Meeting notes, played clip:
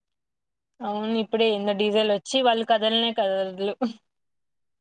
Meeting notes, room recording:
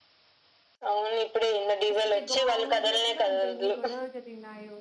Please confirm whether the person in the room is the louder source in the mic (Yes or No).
No